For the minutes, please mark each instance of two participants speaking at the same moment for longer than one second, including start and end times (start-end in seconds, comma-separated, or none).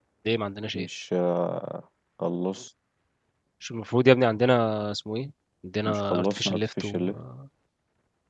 5.8-7.1